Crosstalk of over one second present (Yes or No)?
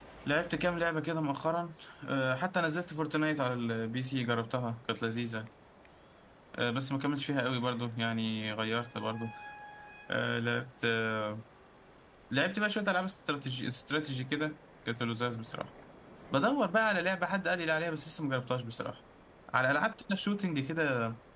No